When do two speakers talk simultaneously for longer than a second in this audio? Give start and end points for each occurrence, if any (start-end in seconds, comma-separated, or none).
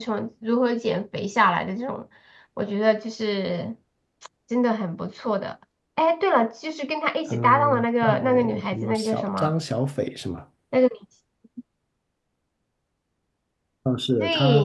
7.3-9.5